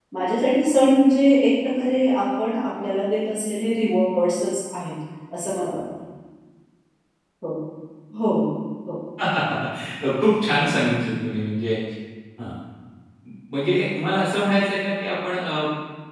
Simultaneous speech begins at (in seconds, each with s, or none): none